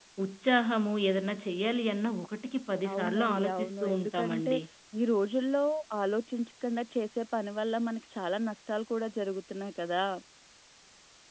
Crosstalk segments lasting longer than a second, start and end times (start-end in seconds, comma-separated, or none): 2.9-4.5